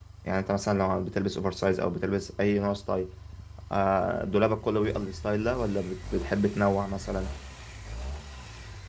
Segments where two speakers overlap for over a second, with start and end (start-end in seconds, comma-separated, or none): none